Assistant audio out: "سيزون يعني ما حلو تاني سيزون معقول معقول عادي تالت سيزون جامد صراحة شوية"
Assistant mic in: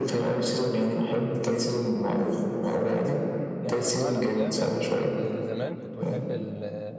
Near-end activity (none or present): present